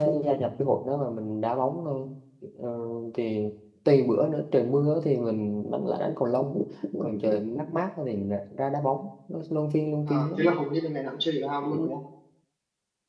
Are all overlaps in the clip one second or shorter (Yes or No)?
Yes